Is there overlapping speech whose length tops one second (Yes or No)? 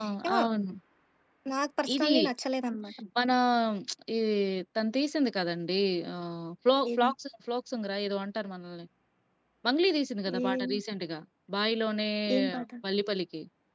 No